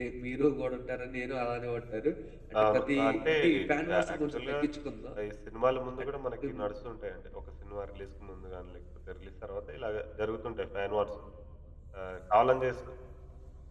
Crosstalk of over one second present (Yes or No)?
Yes